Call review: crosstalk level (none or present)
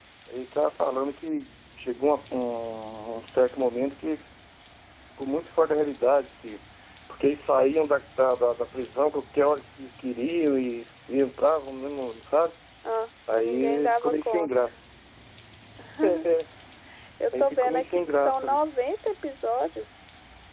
present